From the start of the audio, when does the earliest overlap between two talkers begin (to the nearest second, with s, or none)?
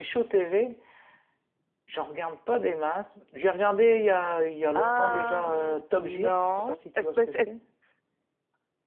5 s